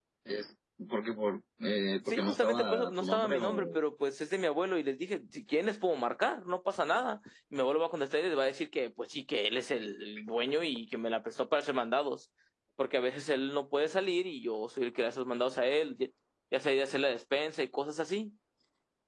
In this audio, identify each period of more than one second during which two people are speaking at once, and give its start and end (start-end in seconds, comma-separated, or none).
2.1-3.8